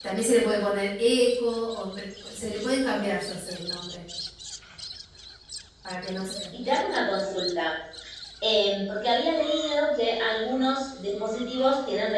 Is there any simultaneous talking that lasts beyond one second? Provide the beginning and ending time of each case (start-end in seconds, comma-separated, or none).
none